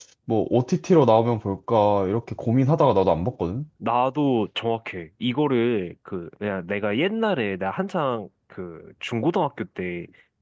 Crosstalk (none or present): none